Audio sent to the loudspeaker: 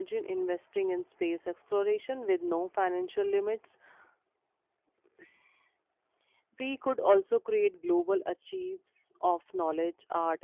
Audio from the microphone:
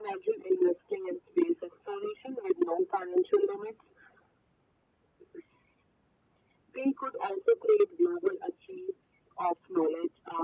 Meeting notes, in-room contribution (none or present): none